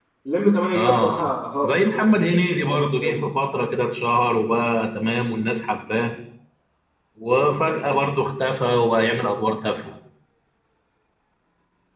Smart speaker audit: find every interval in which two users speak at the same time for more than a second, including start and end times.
0.7-3.2

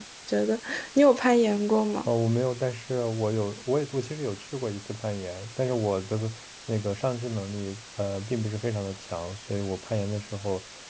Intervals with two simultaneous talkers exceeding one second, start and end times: none

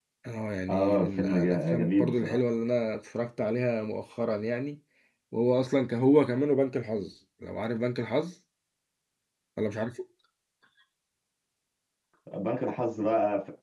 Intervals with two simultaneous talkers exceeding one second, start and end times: 0.7-2.4

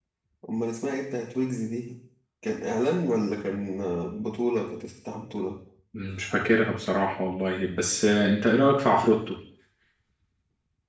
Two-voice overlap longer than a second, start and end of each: none

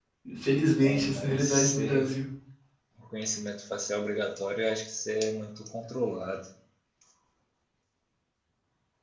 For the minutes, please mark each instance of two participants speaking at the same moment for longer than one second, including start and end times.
0.8-2.1

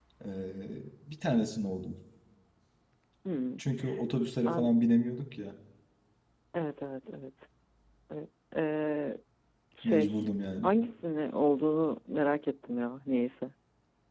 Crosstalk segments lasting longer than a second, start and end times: none

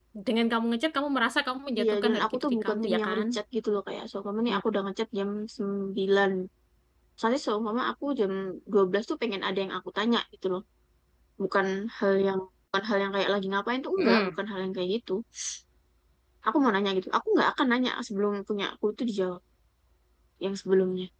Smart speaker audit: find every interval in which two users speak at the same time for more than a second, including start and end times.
1.8-3.2

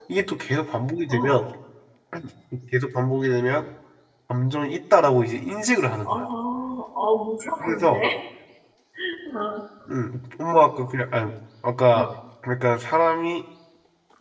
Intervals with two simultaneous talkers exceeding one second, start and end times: none

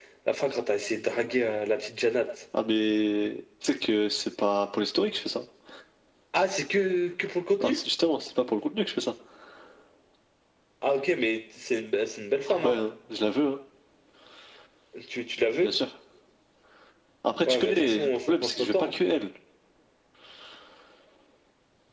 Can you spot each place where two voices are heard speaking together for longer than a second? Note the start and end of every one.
17.5-18.9

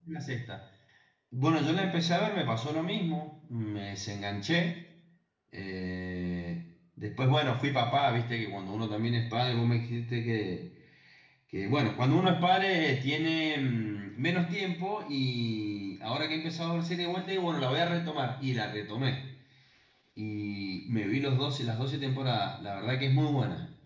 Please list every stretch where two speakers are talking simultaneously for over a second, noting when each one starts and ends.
none

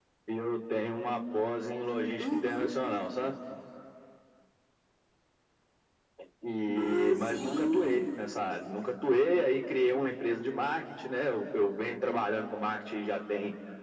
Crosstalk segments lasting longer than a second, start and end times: 6.8-8.1

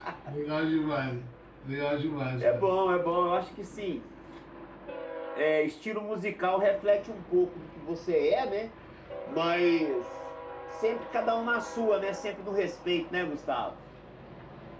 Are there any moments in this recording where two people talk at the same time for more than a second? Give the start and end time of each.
none

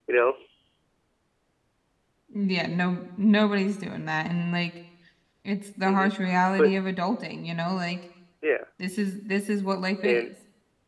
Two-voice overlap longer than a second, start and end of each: none

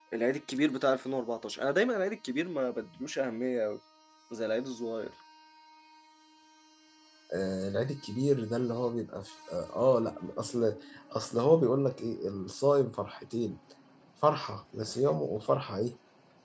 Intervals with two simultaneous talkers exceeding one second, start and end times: none

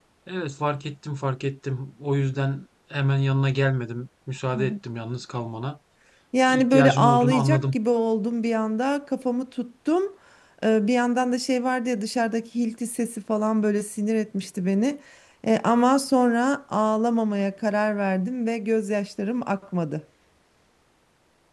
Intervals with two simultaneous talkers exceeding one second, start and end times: 6.5-7.8

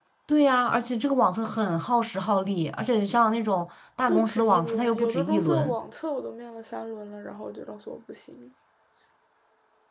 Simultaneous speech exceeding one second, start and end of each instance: 4.1-5.8

